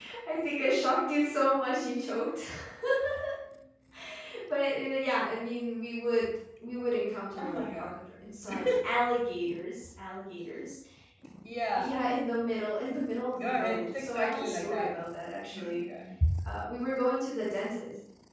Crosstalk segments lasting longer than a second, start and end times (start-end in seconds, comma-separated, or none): 13.4-14.9